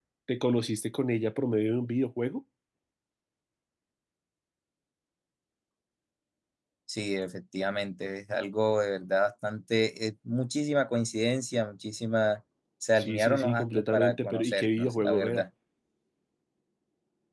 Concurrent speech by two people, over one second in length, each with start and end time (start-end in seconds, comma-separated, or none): 13.0-15.4